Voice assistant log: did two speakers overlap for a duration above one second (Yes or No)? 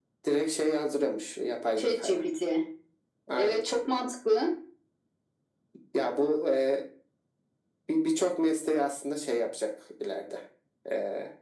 No